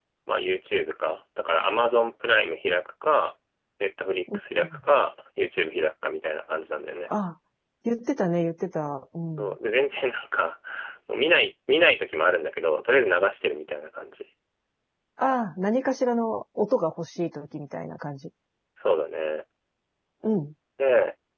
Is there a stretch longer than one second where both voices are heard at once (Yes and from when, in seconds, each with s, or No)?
No